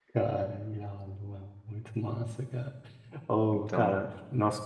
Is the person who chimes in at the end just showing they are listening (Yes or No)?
Yes